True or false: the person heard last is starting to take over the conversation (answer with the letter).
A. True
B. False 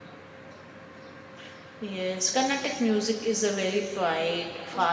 A